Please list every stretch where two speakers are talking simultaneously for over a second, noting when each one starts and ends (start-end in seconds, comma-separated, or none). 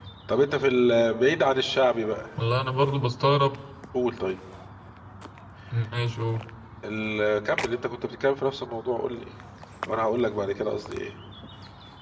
none